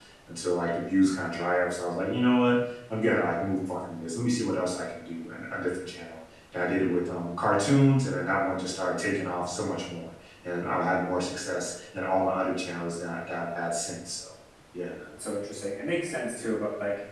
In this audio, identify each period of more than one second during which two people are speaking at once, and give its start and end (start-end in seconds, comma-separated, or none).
none